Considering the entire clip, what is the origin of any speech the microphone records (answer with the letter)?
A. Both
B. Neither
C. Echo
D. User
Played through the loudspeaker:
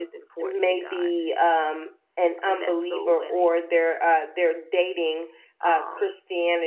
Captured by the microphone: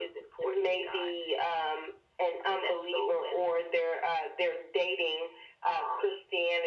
C